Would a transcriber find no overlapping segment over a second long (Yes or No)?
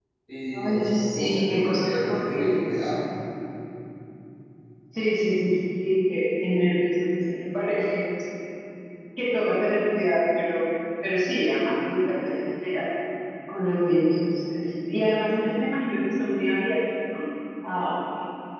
No